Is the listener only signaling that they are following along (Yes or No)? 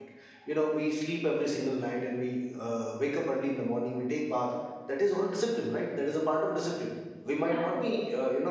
Yes